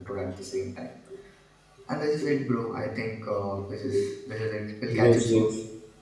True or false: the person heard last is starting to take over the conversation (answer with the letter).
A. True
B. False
A